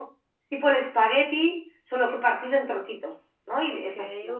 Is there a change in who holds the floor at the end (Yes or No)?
Yes